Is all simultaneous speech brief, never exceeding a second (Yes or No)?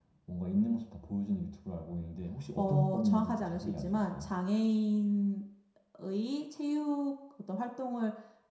No